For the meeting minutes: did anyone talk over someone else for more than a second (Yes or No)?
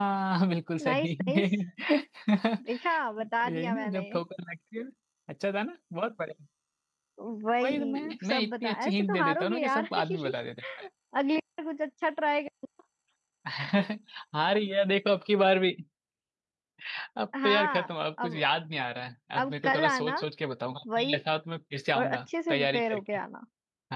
Yes